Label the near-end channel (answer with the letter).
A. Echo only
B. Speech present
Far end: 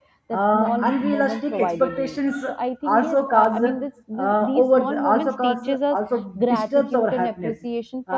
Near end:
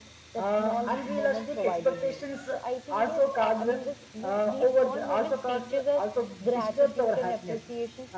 A